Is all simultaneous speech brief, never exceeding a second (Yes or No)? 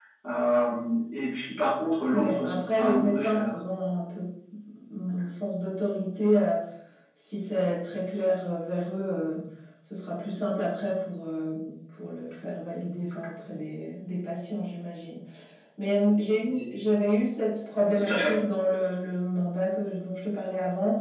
No